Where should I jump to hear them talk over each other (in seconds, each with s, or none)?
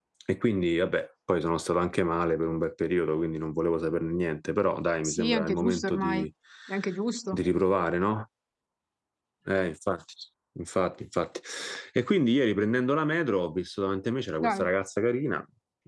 5.0 s